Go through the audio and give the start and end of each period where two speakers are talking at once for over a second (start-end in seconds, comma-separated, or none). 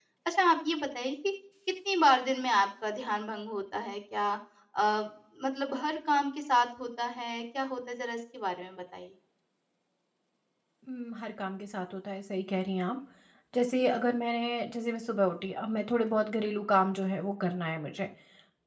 none